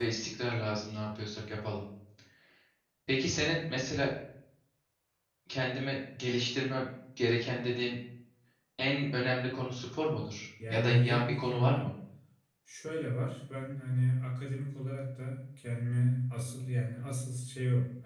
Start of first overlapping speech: 11 s

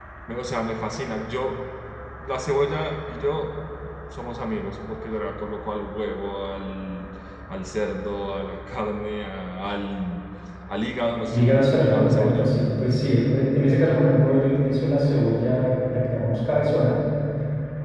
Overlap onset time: 11 s

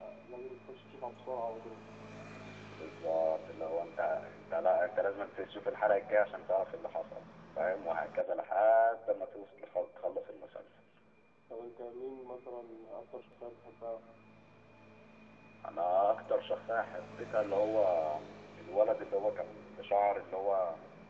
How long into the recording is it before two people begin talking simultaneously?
none

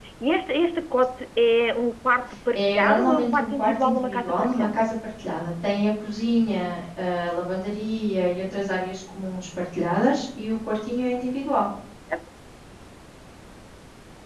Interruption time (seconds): 3 s

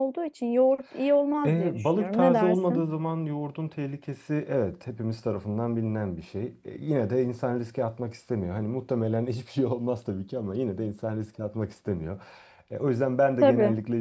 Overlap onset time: 1 s

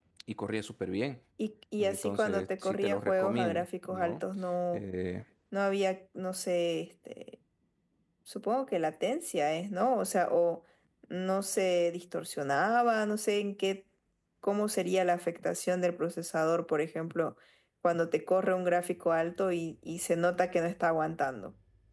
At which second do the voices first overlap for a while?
2 s

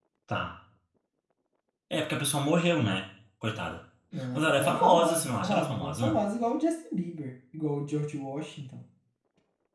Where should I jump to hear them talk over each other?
4 s

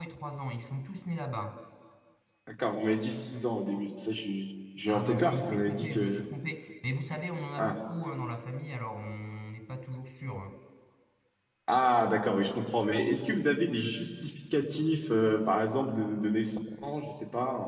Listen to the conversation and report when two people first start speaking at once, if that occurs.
5 s

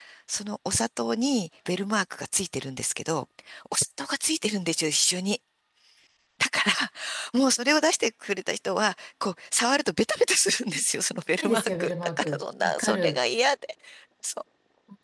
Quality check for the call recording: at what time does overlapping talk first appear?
11 s

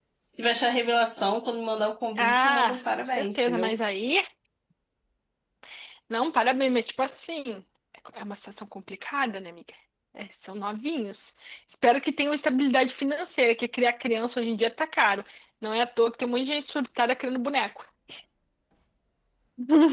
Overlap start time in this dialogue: 2 s

